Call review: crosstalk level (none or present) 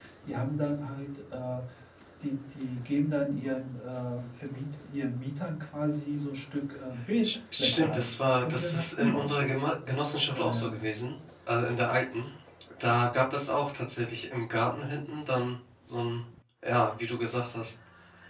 present